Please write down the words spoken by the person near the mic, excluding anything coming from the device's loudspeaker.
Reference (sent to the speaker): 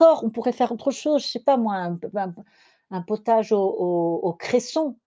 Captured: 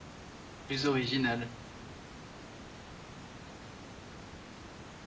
Plus original.

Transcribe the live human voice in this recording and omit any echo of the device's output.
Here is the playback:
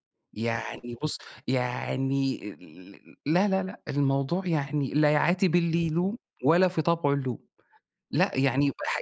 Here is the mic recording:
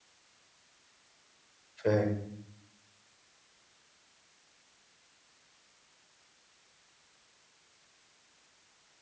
فاهم.

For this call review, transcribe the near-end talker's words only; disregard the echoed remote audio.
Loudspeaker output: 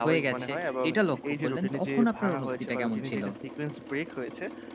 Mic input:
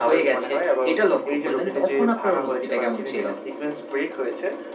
none

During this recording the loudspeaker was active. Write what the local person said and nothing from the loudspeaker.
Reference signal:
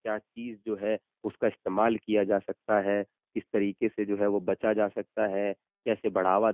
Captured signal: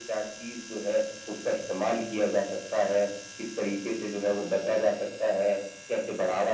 none

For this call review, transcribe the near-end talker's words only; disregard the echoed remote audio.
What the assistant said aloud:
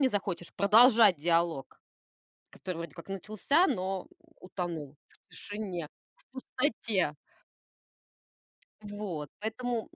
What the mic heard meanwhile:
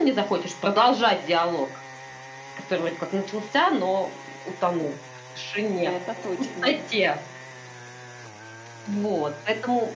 Это точно.

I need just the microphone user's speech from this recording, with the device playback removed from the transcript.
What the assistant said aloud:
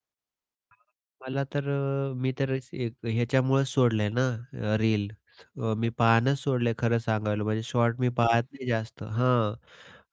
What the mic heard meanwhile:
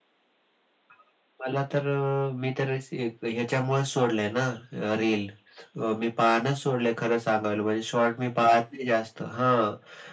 none

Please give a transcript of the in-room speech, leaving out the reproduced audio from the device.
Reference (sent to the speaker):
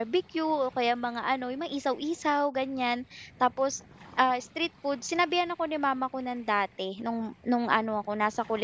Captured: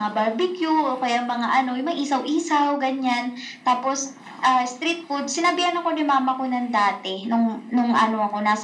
none

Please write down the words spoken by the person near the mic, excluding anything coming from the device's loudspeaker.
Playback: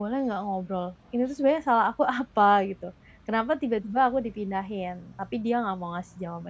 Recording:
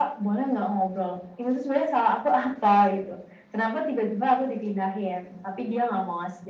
none

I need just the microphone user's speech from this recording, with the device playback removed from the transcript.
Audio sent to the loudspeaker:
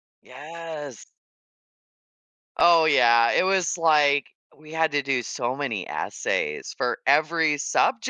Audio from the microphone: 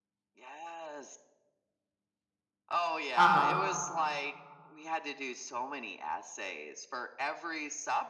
Uh-huh.

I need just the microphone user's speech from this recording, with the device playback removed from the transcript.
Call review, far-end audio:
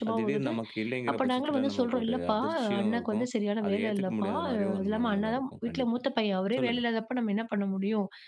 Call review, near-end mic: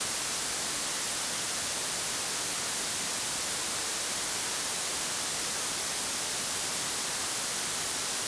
none

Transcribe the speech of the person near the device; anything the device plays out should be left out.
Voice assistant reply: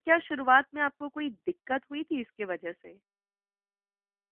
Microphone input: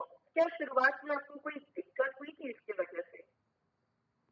none

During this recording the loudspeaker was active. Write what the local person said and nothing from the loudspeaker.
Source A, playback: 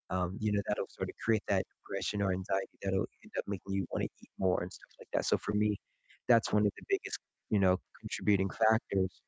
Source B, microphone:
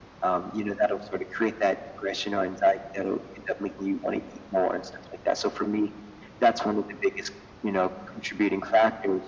none

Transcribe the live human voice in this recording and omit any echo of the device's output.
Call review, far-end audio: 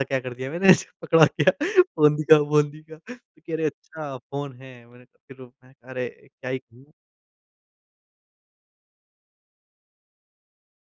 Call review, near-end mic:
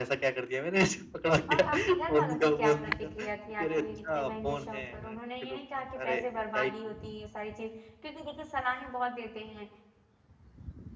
और आपके घरवालों की क्या प्रतिक्रिया थी आपके इतने महँगे शौक पर? उन्होंने ये नहीं कहा कि पैसे बर्बादी होती हैं ये सारी चीज़ें? क्योंकि देखिए सलाहें बहुत देते हैं

